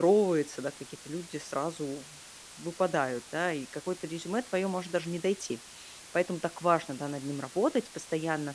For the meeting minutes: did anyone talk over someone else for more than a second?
No

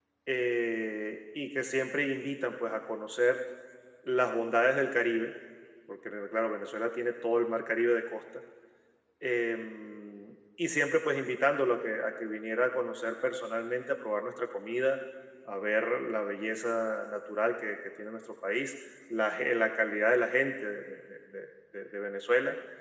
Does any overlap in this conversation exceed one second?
No

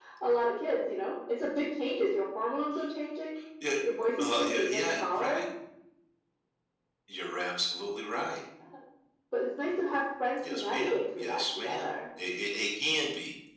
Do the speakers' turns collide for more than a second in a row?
Yes, from 4.2 s

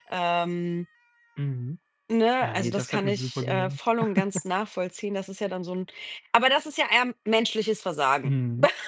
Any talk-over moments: Yes, from 2.4 s

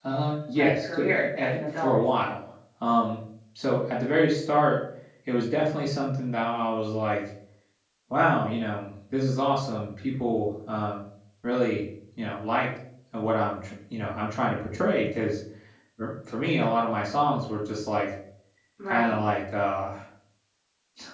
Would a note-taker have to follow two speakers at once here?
Yes, from 0.6 s

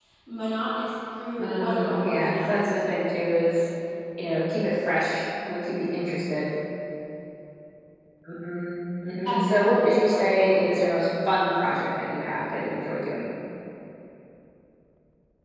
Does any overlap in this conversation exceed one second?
Yes, from 1.4 s

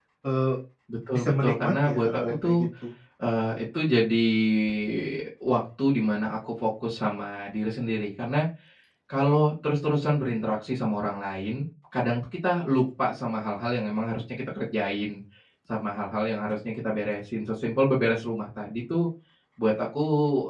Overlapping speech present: Yes, from 1.1 s

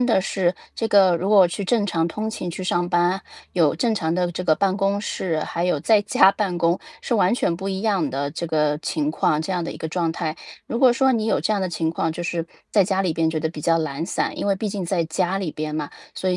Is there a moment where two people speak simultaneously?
No

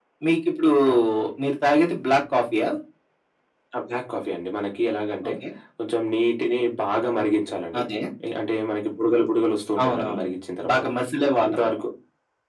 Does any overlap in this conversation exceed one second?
No

